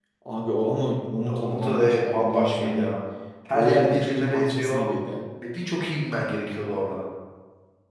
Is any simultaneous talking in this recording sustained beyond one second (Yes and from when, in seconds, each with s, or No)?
Yes, from 1.3 s